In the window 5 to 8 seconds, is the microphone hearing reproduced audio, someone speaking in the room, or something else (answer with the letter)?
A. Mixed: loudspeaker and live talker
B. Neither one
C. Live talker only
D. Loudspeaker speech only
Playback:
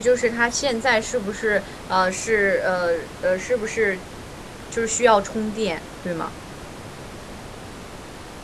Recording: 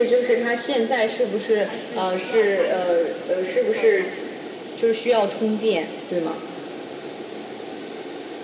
D